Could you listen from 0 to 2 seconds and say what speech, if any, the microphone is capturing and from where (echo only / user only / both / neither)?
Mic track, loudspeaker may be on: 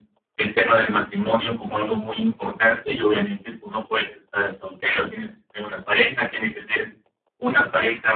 echo only